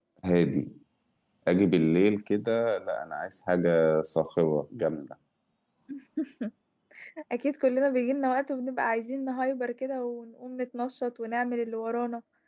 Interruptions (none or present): none